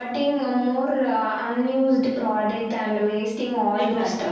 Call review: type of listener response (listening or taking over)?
taking over